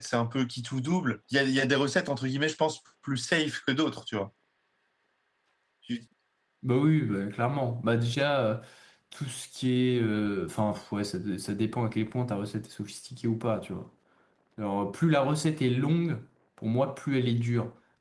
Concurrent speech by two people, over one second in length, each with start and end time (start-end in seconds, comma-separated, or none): none